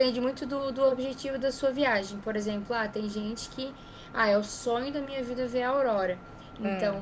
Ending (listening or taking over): listening